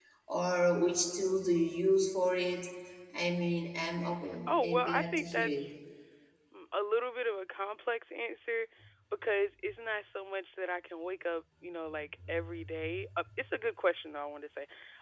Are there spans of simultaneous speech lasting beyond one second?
Yes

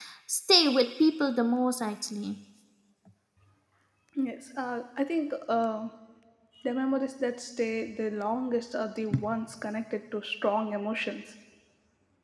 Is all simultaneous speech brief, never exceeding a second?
Yes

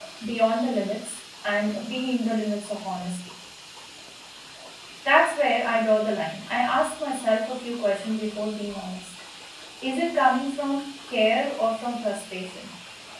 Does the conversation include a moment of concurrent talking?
No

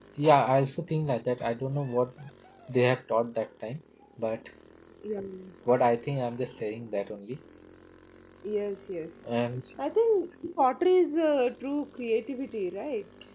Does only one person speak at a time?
Yes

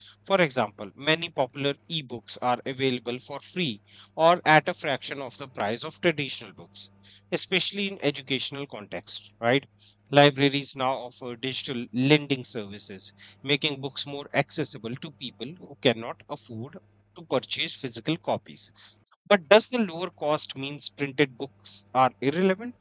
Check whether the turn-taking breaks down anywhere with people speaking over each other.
No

